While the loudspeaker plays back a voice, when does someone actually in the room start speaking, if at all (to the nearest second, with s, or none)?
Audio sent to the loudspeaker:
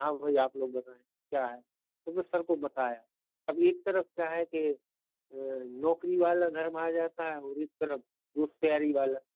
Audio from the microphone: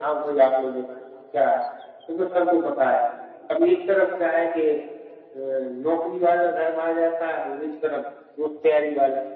none